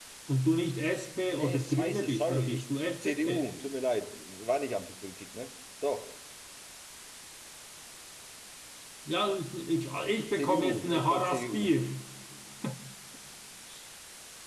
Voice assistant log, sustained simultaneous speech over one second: present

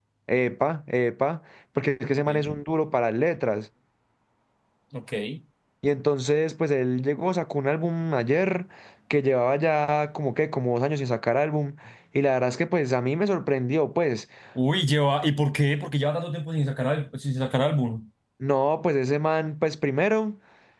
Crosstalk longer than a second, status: none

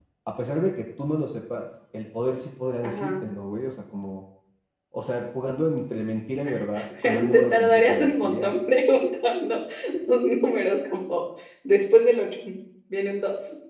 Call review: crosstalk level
present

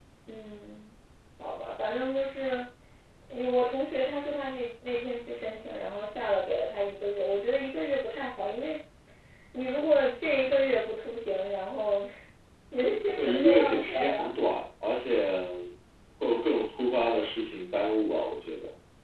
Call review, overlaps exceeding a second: present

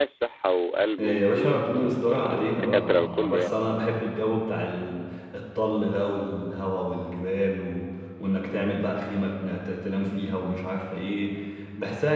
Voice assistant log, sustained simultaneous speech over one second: present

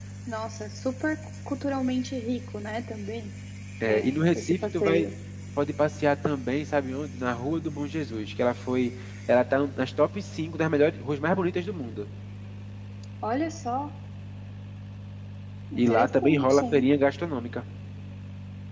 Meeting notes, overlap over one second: present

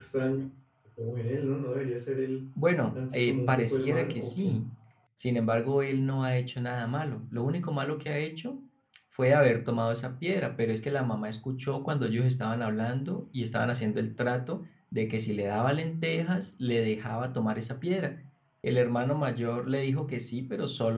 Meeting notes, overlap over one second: present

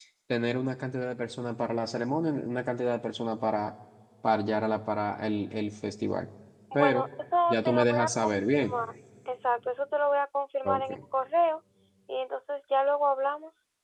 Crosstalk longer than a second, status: present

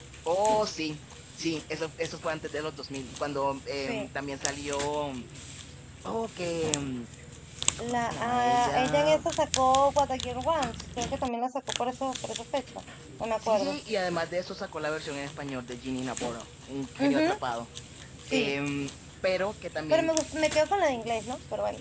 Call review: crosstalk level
present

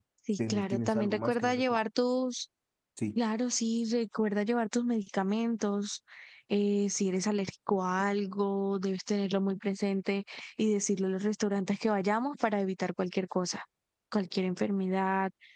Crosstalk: present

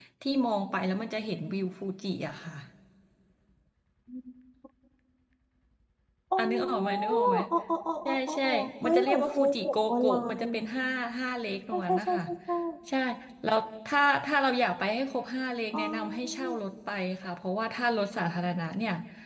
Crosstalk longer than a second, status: present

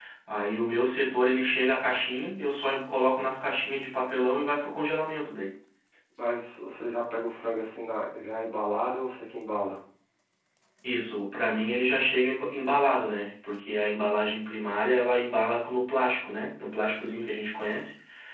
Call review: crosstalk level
none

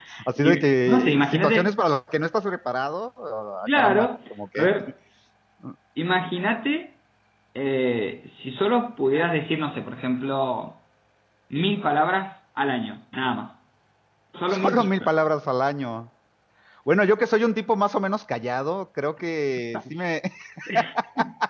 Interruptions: present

